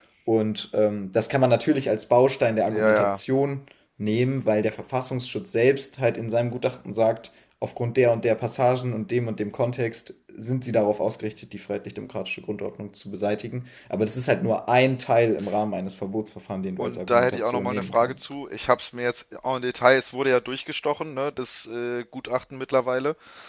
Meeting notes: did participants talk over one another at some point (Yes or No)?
Yes